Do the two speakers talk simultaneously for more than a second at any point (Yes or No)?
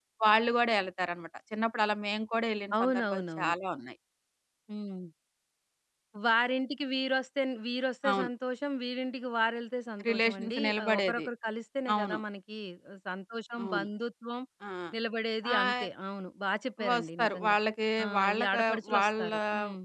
Yes